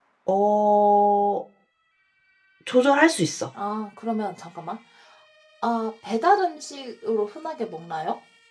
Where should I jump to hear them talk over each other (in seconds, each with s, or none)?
none